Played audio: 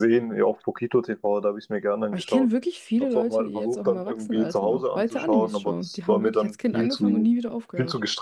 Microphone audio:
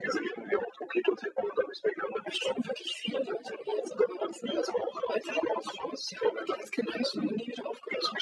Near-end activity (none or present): none